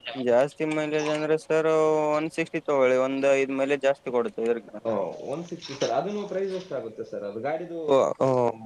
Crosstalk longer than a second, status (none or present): none